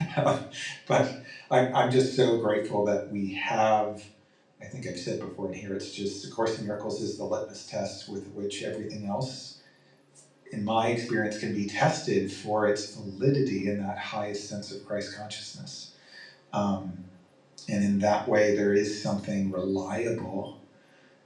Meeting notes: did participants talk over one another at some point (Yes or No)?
No